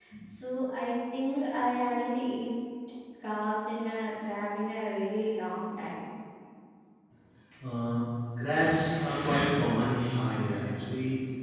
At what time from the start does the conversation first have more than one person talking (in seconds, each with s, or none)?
none